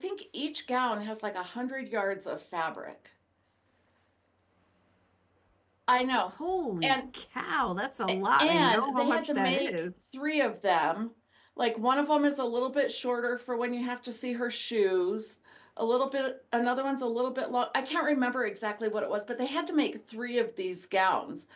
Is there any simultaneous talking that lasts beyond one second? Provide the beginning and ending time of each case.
8.4-9.8

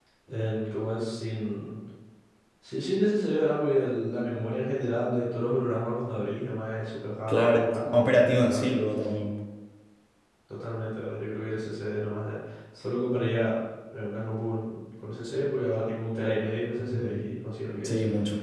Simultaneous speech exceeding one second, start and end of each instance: 7.3-8.8

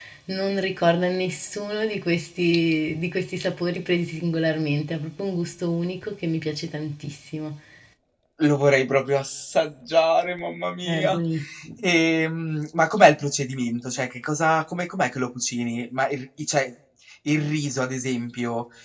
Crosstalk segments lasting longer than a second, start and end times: none

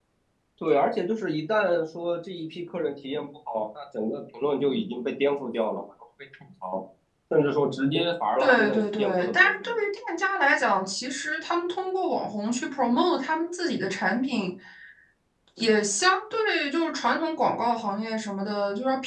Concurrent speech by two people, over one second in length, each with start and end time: 8.4-9.7

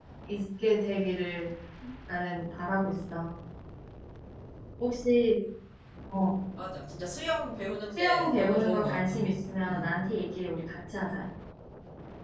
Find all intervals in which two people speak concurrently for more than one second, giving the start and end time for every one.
7.9-9.3

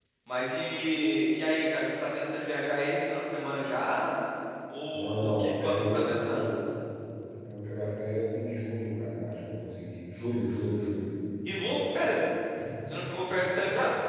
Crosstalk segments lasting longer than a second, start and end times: 4.9-6.4

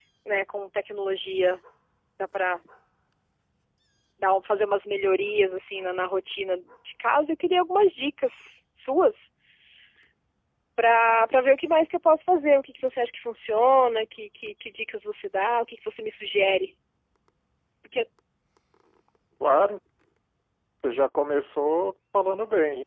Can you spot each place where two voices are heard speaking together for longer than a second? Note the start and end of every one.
none

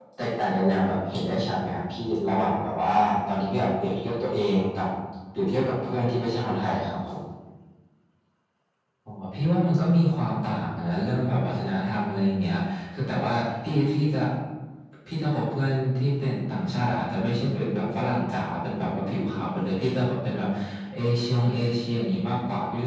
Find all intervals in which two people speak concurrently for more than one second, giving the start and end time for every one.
none

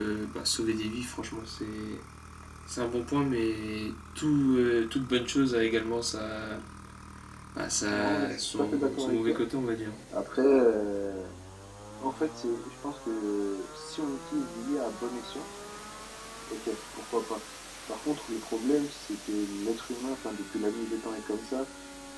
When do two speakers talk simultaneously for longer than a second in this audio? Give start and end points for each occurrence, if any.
7.9-9.4

